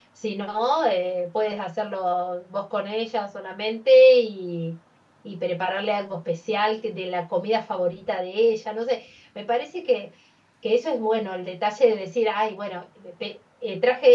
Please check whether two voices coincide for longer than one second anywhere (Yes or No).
No